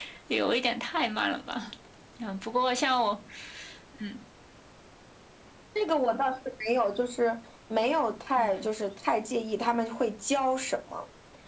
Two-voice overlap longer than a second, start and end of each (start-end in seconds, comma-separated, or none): none